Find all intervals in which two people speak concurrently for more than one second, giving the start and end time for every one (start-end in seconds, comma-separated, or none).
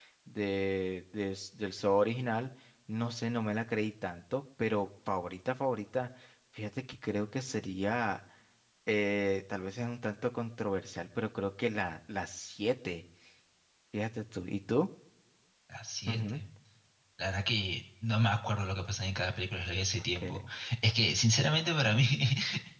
none